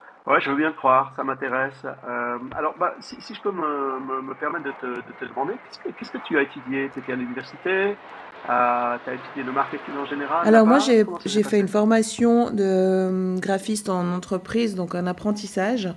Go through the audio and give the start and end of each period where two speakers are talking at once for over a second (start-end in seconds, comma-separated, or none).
10.4-11.7